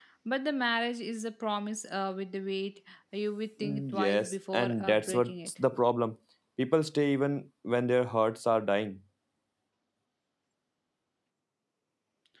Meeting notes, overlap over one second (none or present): present